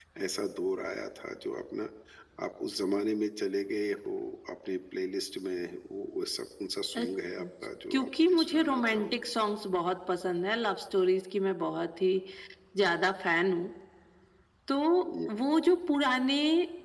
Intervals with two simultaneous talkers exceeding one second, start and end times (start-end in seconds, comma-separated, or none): 7.9-9.2